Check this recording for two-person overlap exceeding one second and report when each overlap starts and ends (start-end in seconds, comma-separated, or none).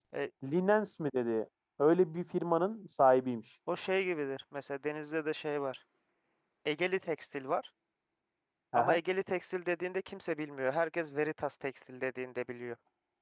none